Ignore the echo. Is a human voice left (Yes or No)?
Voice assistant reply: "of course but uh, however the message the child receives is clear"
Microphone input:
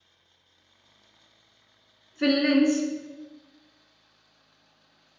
Yes